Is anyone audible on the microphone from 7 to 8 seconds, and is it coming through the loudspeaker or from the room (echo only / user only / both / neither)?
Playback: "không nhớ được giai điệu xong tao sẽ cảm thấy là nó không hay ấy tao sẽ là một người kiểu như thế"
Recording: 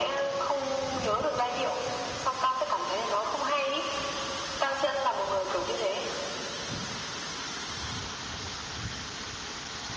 neither